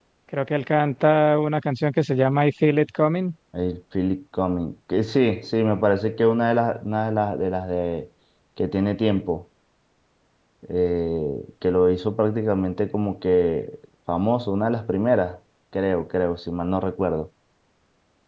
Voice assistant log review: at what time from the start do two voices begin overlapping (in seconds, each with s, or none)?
none